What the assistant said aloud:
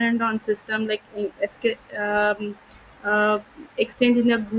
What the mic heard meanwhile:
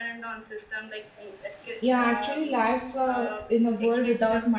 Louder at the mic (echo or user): user